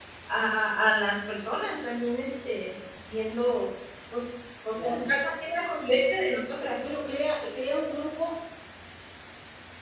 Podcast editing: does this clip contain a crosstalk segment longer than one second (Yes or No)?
No